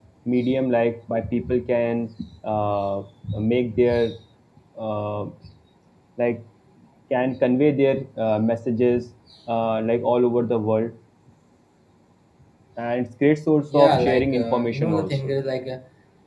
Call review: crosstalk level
present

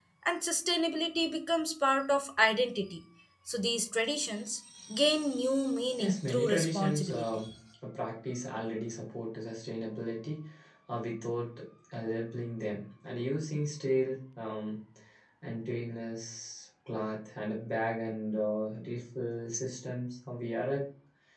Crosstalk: present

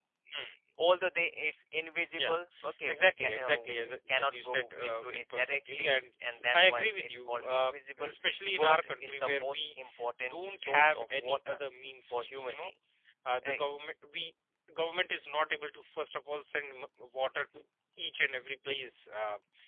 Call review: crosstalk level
present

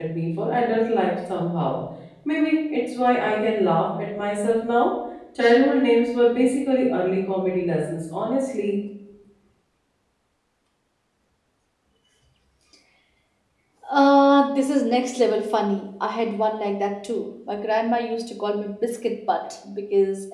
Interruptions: none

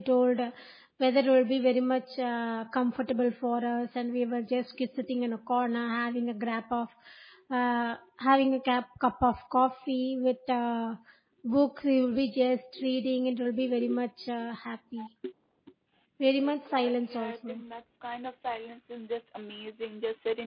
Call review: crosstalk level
present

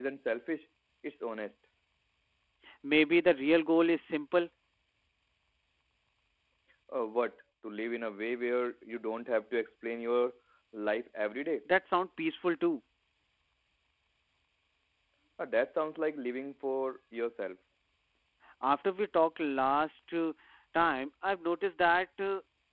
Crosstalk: none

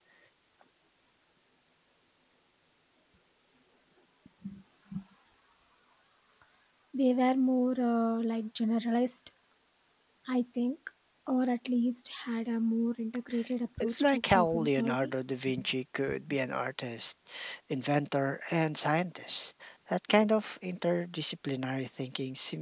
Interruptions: present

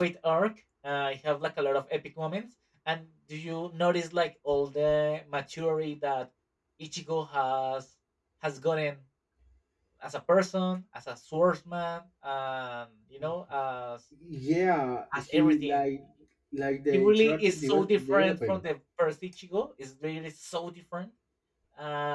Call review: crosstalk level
present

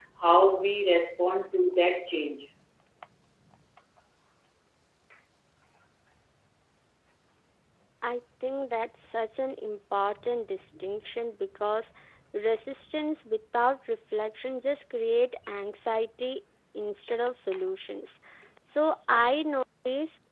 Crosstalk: none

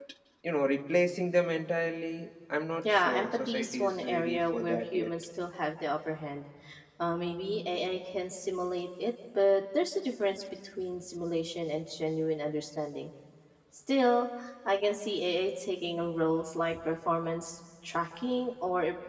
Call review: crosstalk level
present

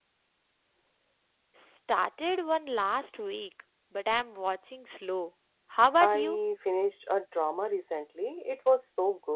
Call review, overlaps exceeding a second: none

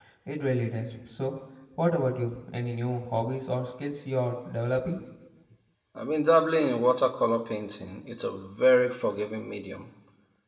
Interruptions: none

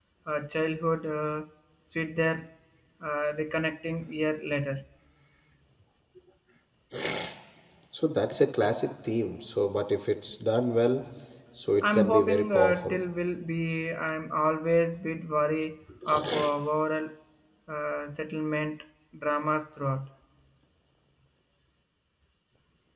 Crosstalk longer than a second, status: present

